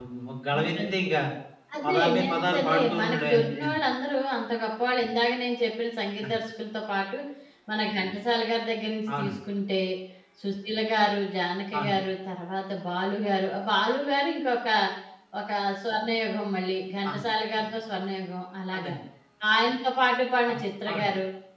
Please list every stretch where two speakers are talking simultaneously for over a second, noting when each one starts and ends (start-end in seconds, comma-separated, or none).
1.9-3.6